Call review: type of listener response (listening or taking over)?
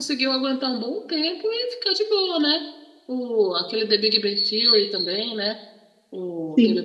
taking over